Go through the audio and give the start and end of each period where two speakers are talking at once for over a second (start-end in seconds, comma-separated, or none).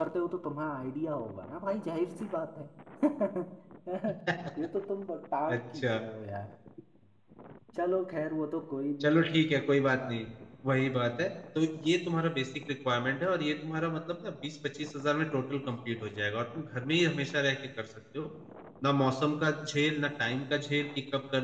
none